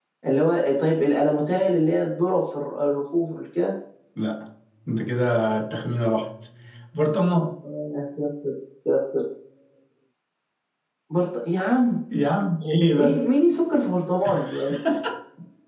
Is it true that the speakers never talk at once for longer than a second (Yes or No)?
Yes